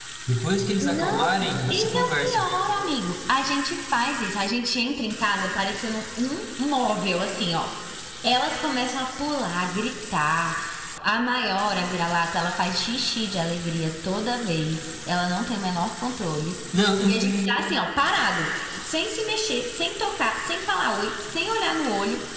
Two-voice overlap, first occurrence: 0.8 s

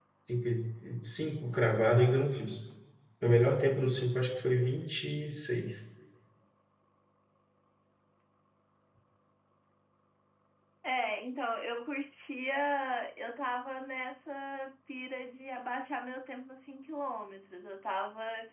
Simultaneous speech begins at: none

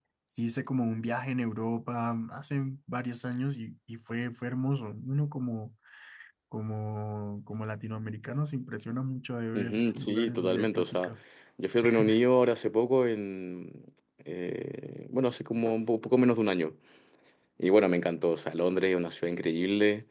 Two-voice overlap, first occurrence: 9.5 s

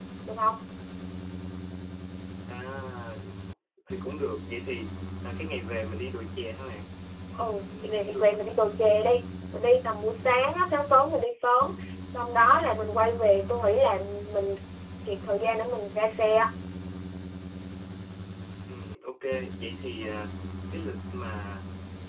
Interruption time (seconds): 7.4 s

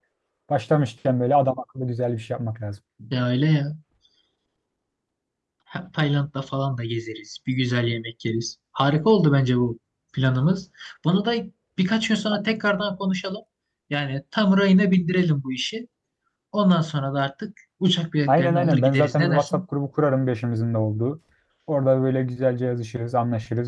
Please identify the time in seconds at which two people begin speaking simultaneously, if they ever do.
18.3 s

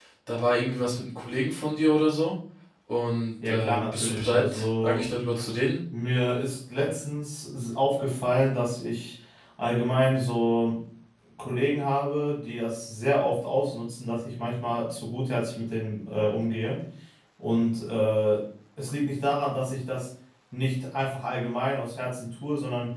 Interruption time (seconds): 3.5 s

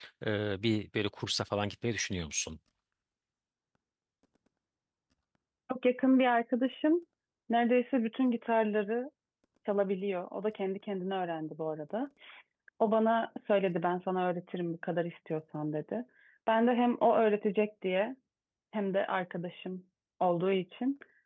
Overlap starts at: none

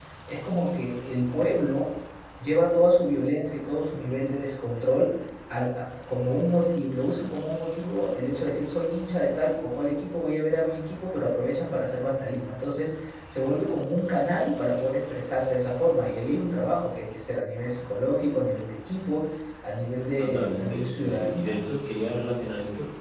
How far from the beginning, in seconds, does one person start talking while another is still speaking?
20.2 s

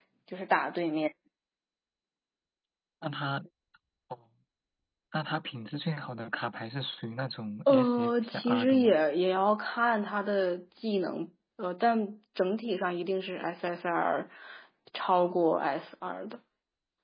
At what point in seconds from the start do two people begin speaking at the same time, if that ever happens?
7.7 s

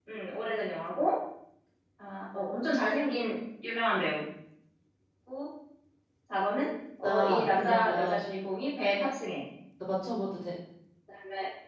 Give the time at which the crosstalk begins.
7.0 s

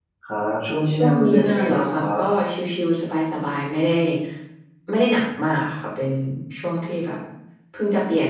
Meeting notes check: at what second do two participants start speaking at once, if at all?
0.9 s

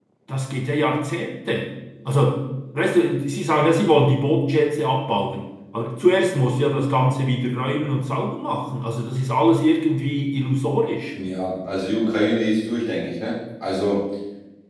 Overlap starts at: none

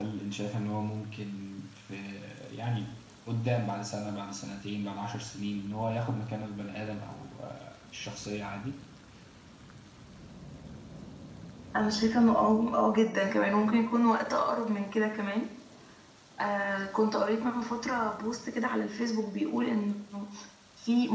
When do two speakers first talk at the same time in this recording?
none

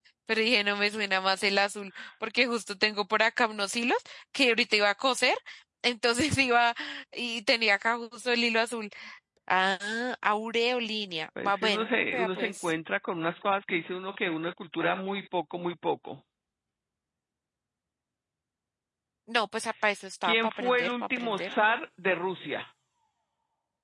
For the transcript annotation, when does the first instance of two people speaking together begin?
11.4 s

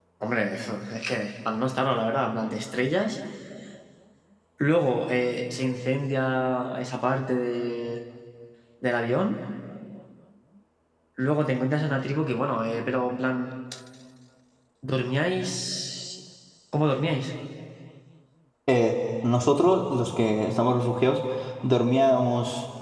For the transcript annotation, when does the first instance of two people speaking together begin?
none

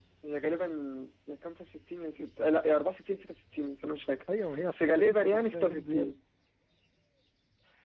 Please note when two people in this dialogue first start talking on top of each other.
4.7 s

